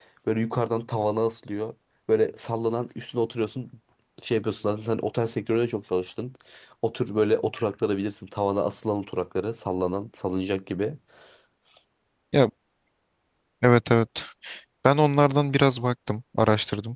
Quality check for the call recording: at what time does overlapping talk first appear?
none

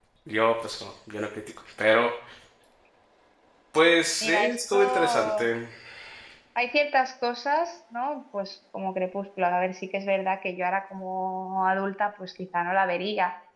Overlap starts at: 4.2 s

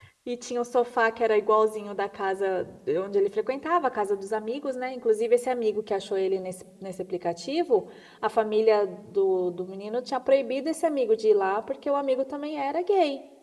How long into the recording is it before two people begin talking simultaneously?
none

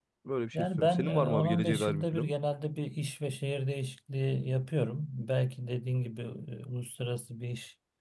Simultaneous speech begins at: 0.5 s

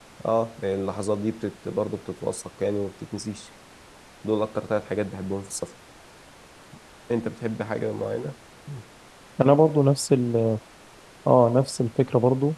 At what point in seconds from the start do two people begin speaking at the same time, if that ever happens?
none

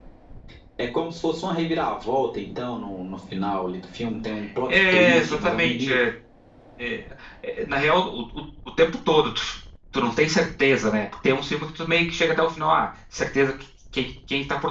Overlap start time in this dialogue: 4.7 s

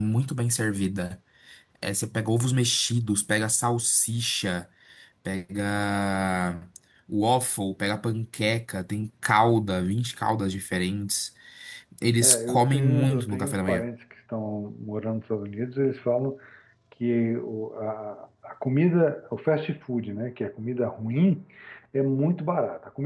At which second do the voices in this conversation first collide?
12.2 s

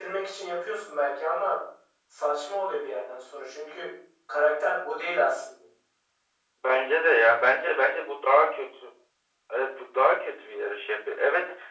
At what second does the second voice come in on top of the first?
none

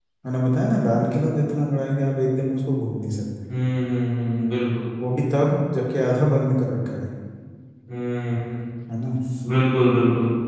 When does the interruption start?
none

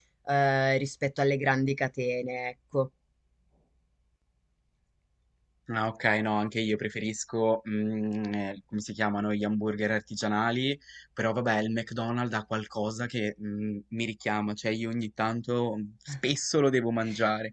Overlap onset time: none

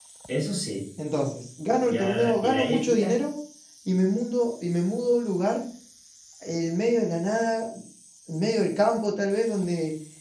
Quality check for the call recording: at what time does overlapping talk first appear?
1.8 s

